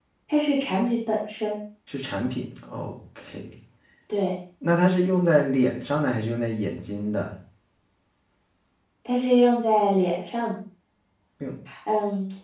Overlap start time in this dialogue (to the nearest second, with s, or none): none